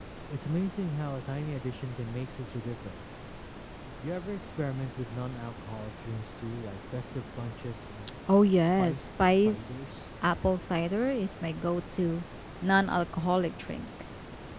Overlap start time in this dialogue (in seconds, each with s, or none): 8.6 s